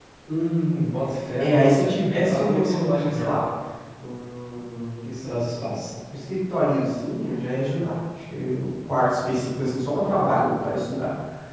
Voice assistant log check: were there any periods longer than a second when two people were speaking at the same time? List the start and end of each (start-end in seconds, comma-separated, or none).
1.4-3.4